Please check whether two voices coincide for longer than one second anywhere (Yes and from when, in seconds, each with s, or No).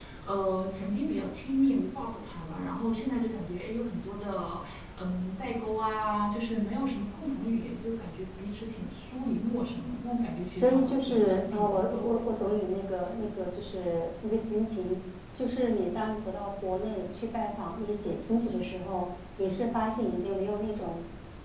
Yes, from 10.5 s